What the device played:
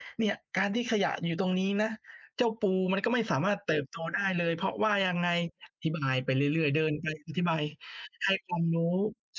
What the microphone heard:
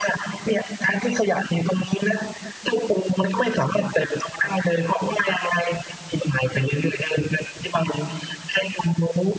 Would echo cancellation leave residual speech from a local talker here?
No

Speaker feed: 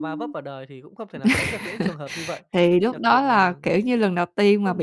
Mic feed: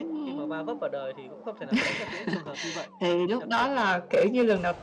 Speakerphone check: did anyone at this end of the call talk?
No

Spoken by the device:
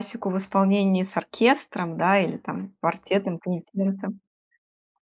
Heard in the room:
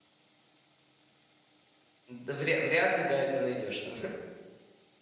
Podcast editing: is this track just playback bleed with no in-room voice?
No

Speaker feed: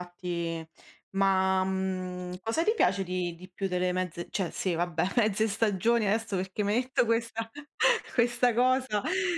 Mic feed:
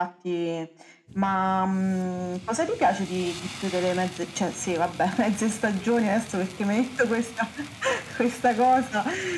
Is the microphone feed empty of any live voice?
Yes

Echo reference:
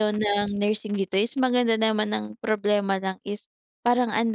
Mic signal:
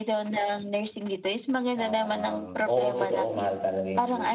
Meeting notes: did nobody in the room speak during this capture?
No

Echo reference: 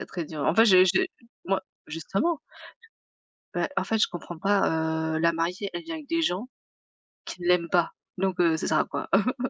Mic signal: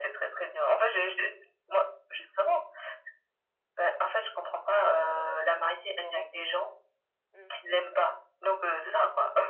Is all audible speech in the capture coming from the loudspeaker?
No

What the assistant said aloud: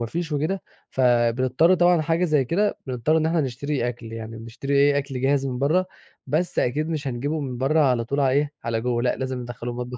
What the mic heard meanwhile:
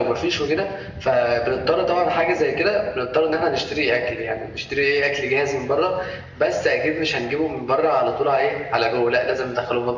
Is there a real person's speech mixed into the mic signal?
No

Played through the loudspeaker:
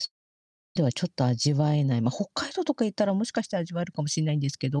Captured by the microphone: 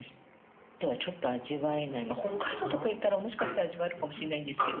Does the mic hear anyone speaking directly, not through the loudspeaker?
Yes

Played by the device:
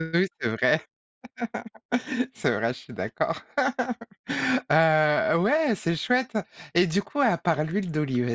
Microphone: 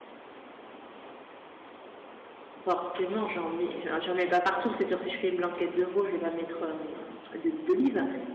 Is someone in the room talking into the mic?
Yes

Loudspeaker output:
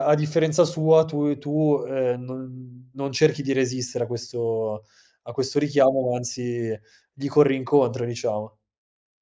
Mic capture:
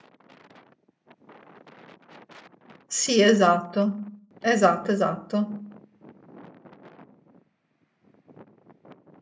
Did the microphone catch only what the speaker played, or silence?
No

